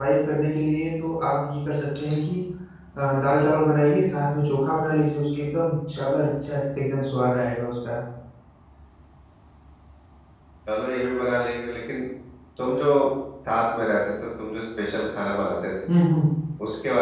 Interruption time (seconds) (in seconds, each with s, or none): none